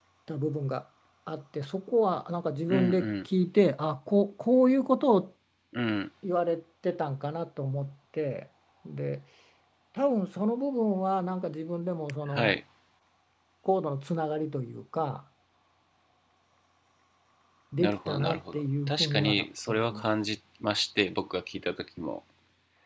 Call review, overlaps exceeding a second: present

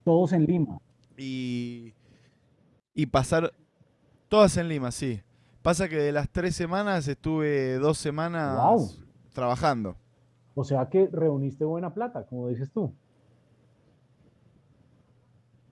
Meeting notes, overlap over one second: none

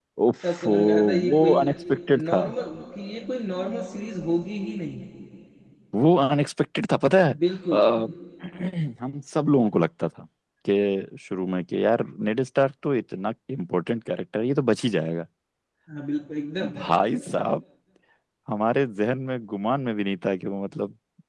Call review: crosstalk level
present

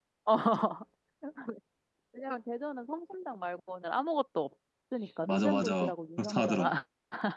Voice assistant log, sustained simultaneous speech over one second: present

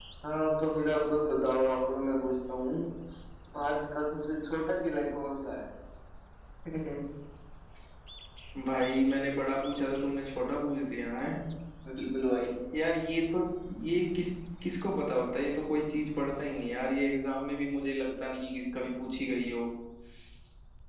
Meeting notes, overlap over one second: none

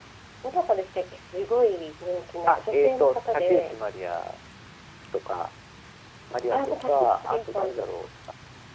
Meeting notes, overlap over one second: present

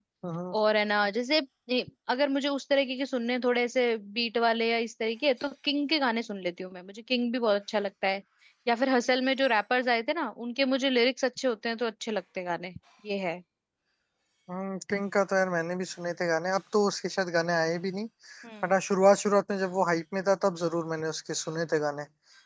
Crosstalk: none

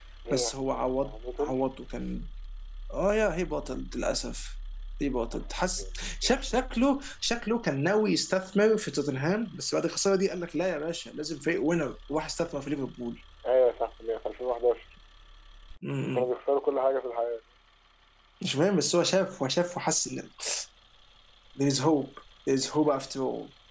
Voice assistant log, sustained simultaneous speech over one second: present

